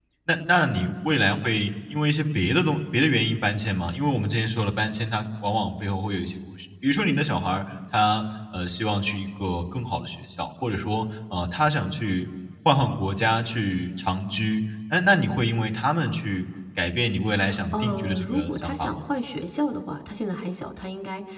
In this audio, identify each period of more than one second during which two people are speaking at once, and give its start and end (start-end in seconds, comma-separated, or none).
17.7-19.0